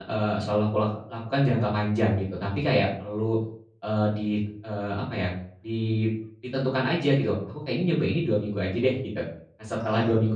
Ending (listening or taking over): listening